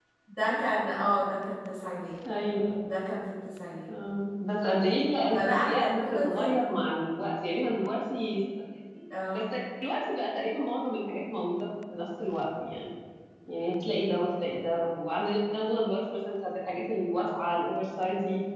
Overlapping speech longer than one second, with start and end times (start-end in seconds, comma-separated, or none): 5.3-6.5